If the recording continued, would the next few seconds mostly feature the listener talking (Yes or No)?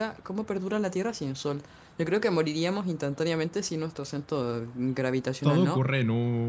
Yes